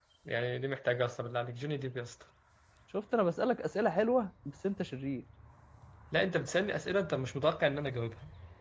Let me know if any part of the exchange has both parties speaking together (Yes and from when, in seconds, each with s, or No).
No